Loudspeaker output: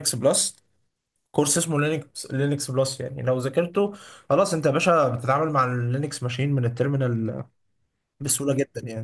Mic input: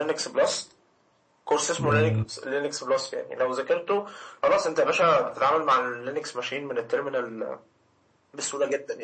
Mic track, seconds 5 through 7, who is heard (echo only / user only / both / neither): echo only